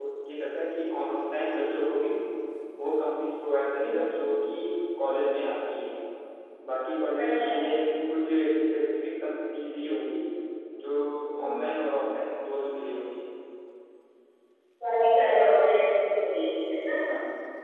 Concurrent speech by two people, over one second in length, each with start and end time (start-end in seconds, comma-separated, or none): none